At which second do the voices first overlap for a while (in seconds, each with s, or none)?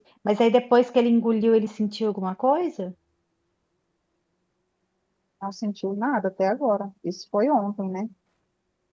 none